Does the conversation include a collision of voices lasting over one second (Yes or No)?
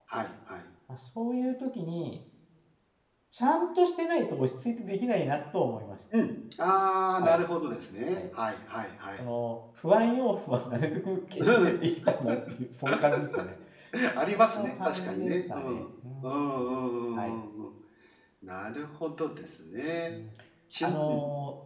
Yes